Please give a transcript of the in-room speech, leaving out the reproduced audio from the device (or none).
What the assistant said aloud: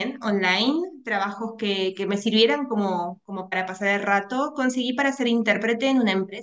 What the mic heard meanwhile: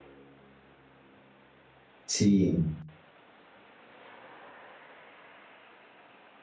sí,